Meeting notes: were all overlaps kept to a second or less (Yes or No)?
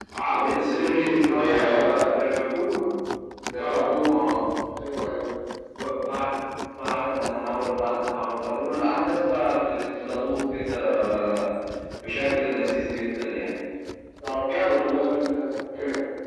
No